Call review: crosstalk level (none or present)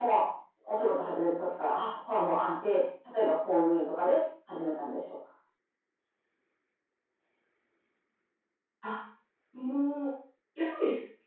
none